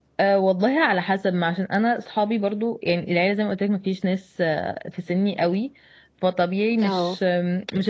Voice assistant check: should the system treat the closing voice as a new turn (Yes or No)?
No